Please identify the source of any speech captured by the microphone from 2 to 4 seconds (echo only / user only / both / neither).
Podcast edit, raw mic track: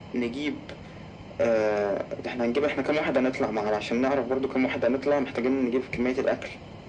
echo only